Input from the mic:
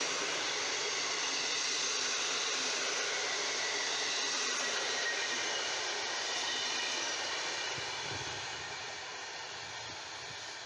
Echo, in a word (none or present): none